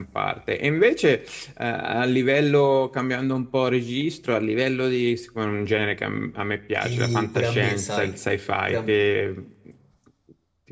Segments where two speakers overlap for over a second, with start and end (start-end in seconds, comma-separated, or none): 6.8-8.2